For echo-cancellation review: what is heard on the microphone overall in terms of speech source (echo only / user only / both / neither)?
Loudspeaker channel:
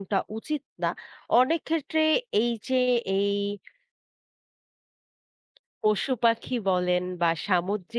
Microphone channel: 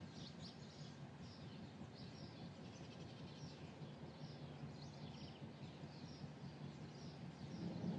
neither